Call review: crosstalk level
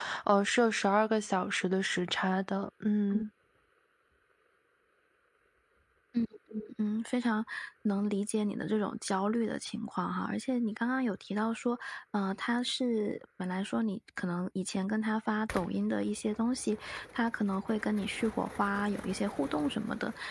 none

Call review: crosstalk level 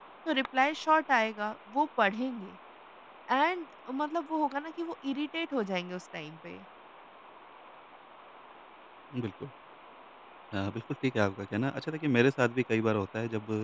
none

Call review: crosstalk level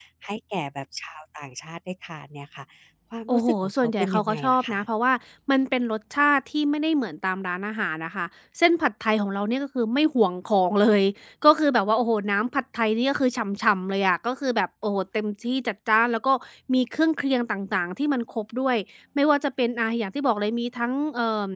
present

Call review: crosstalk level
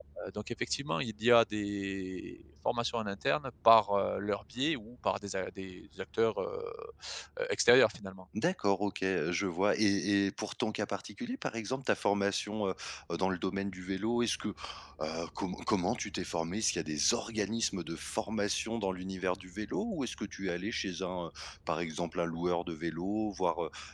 none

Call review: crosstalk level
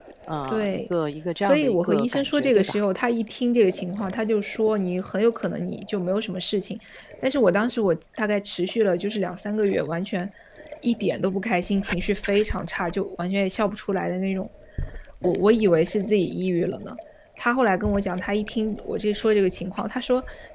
present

